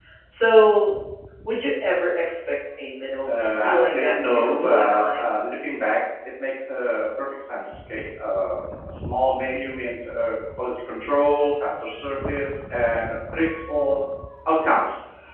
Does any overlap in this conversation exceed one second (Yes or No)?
Yes